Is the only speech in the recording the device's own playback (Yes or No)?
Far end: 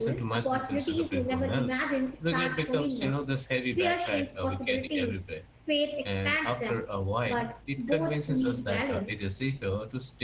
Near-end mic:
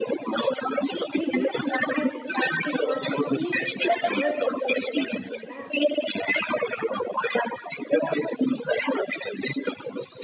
No